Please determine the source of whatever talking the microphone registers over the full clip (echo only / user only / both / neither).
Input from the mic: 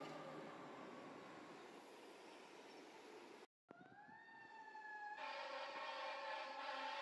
neither